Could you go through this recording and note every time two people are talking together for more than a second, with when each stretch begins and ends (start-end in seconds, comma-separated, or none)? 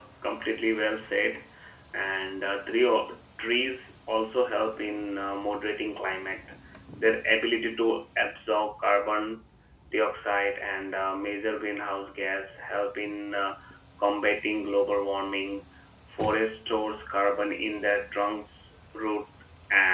none